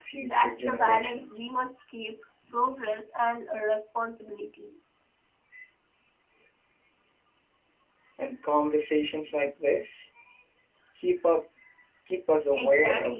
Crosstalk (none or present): present